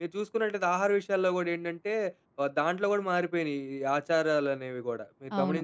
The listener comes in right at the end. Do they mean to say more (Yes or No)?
Yes